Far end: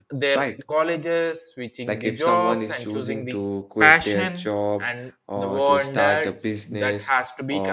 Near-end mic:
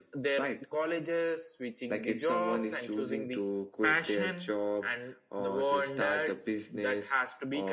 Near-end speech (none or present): none